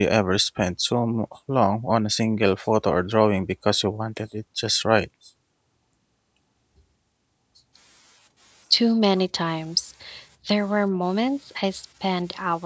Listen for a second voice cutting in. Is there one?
No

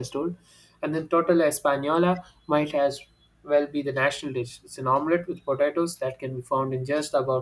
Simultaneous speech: No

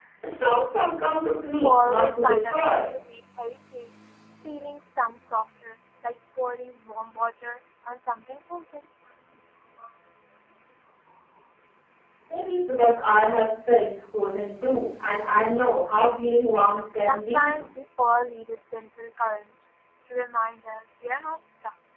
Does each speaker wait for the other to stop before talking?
No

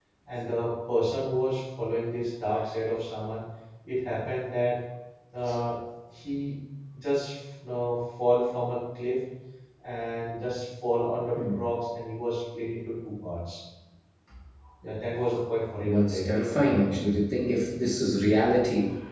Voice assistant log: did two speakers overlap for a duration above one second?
Yes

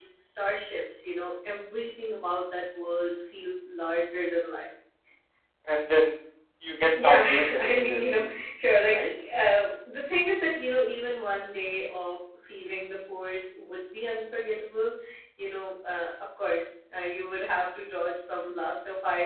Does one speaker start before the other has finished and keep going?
Yes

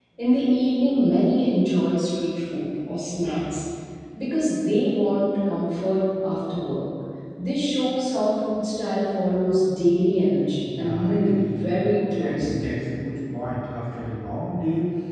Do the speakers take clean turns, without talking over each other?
No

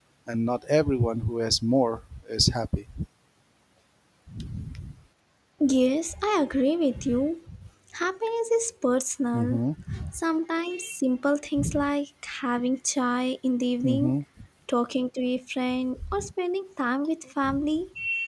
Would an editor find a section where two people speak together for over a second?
No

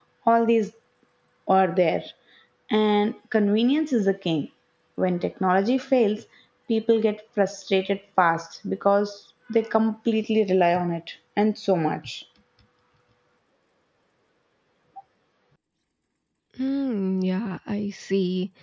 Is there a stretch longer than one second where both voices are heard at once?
No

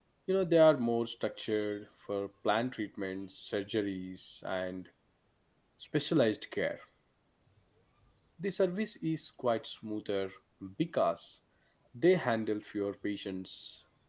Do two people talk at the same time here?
No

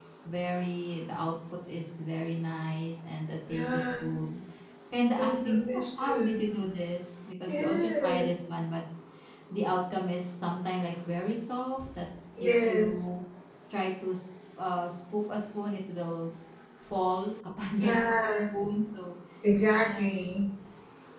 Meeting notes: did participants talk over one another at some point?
Yes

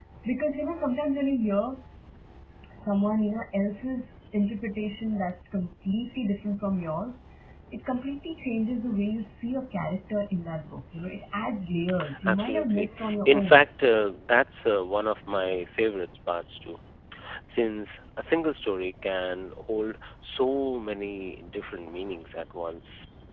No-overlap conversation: No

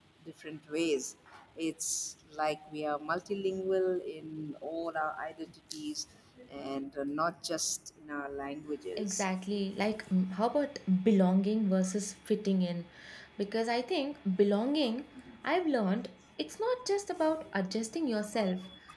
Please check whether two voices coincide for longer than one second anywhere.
No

